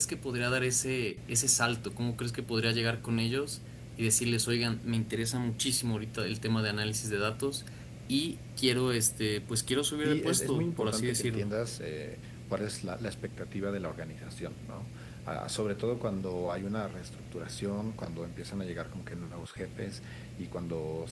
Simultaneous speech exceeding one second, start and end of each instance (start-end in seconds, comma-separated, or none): 10.0-11.5